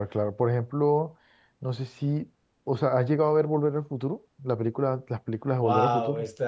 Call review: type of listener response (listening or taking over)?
taking over